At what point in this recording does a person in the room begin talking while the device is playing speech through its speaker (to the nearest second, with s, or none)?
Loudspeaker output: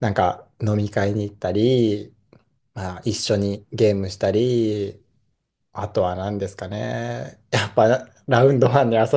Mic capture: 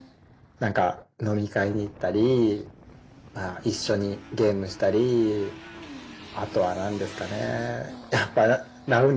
none